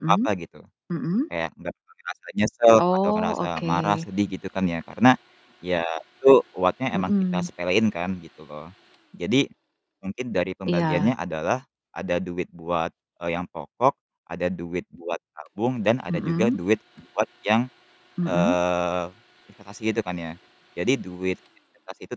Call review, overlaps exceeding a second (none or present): present